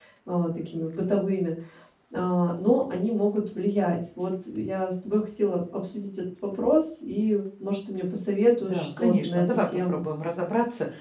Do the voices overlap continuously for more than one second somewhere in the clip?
Yes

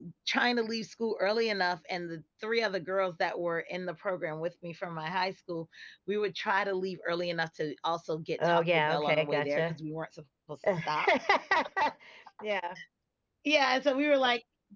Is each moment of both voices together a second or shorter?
No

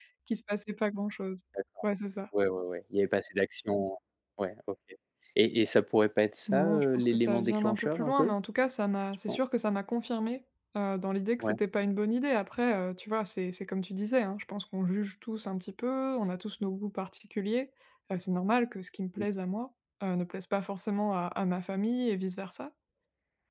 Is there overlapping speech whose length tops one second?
Yes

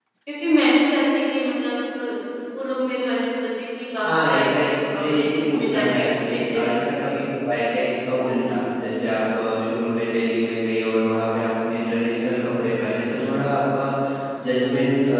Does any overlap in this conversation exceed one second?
Yes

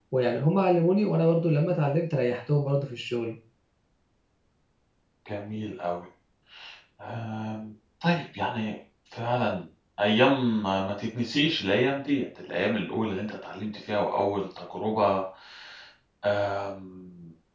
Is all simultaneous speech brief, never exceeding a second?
Yes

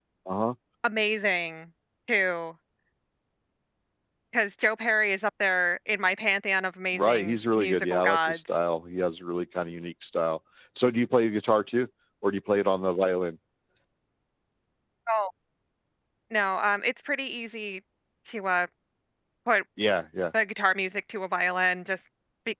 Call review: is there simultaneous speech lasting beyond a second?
Yes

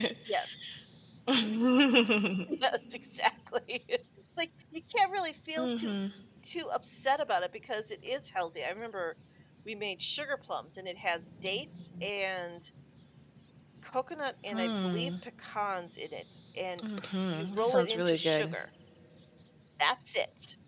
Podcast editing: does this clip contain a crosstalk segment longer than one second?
Yes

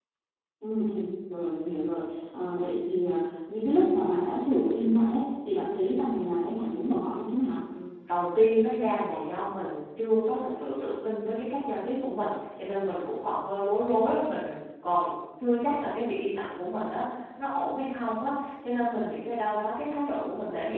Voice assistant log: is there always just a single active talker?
Yes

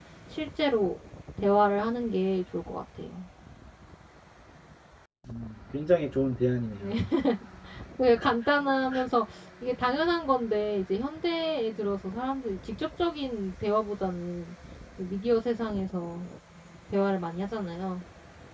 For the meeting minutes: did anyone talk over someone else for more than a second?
No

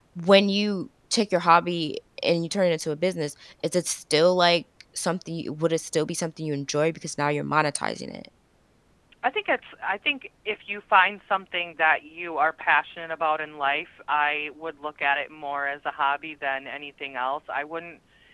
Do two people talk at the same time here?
No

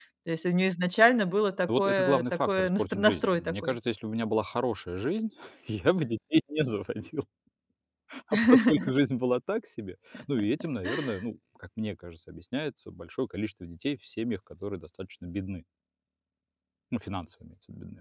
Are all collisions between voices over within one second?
No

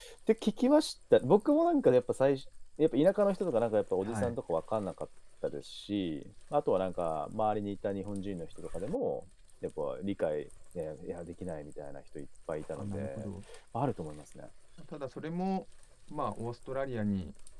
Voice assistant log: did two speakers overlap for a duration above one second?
No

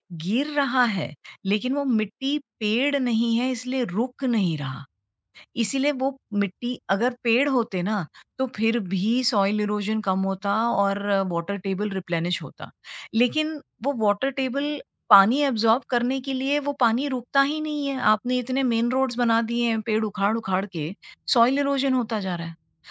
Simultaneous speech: No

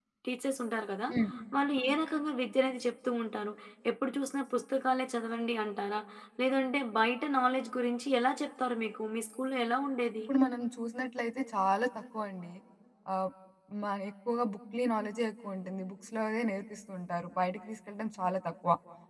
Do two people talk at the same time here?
No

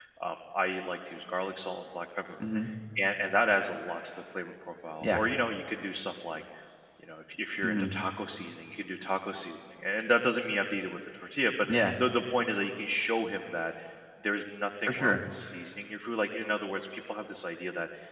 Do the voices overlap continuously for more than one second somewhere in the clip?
No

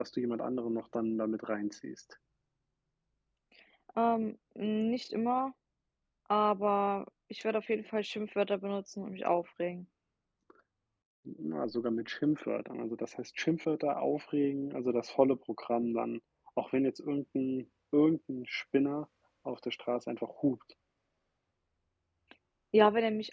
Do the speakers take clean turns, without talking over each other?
Yes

